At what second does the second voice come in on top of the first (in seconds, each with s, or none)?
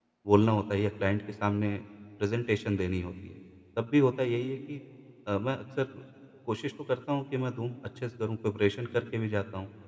none